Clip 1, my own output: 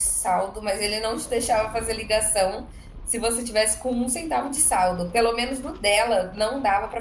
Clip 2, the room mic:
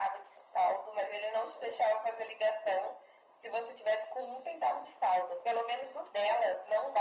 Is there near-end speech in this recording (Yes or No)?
No